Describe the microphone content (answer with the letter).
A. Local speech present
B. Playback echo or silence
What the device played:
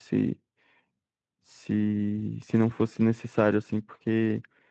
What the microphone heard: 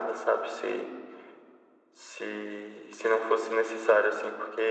B